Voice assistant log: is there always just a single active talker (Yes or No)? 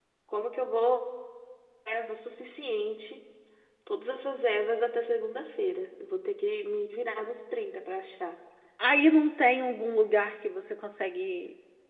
Yes